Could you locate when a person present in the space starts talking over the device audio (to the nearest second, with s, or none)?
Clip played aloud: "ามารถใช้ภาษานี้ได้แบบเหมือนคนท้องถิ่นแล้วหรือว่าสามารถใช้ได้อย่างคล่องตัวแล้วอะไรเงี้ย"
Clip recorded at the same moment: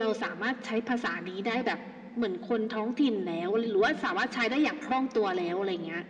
none